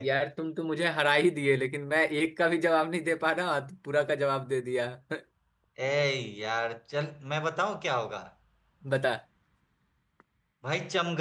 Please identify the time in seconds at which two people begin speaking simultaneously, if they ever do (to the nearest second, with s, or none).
none